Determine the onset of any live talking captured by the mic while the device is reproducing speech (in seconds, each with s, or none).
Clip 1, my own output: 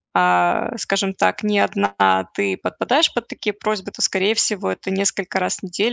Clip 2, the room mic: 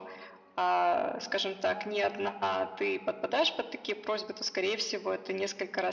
none